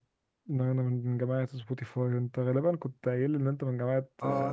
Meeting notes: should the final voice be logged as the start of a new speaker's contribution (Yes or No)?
Yes